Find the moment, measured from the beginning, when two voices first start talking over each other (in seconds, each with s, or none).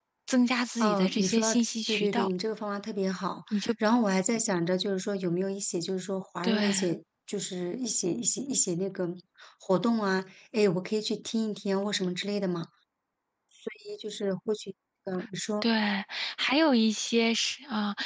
0.8 s